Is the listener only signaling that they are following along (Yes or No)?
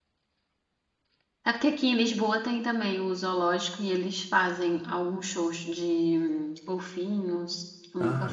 No